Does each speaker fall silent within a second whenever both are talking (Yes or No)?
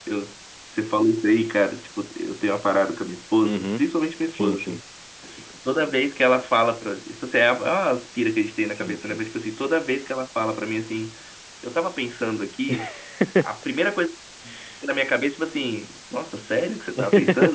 Yes